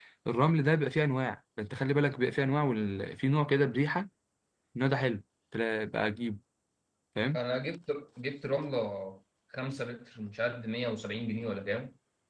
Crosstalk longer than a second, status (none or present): none